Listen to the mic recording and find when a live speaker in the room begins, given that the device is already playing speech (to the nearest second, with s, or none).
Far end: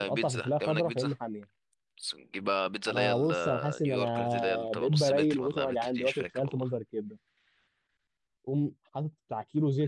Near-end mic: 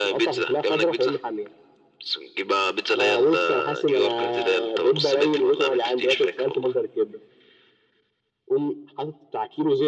none